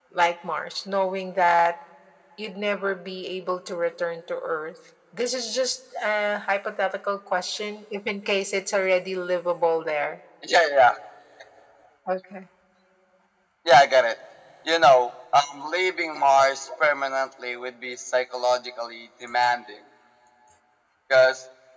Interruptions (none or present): none